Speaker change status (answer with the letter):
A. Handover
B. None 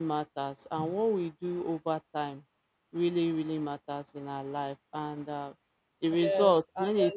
B